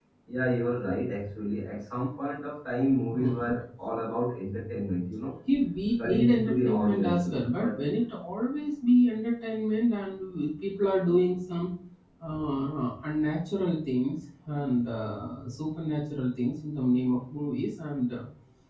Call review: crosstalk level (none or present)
present